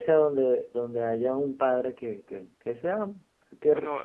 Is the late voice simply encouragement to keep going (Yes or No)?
Yes